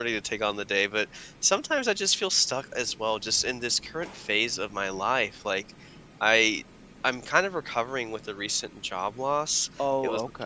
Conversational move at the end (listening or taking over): listening